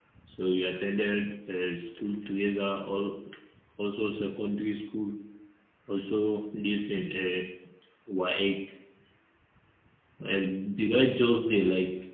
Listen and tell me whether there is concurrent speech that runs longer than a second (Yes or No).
No